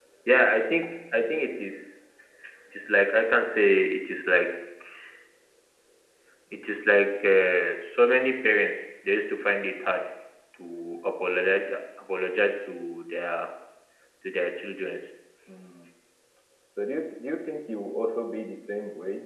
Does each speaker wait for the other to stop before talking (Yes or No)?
Yes